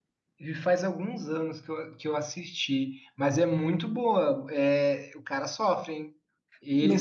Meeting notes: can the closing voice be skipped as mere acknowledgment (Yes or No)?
No